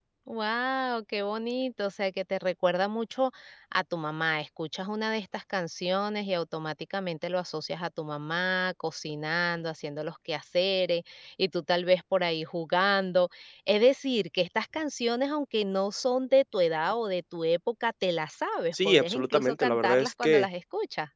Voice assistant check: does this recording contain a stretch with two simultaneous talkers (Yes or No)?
Yes